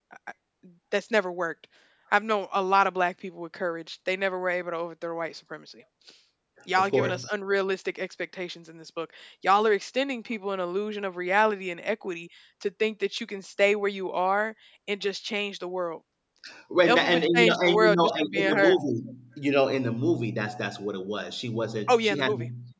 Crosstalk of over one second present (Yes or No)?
Yes